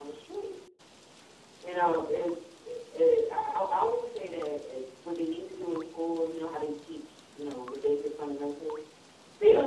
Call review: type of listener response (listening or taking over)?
listening